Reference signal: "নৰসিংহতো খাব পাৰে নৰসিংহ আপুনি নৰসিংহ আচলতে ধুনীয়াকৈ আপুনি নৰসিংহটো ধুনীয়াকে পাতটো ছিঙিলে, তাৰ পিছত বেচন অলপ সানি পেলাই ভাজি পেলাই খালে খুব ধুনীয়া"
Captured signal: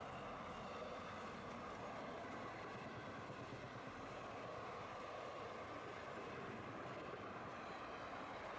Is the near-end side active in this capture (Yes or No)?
No